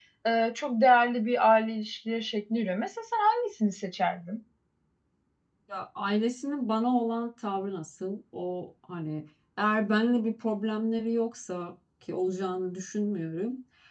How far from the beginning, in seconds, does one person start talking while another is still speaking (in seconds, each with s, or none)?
none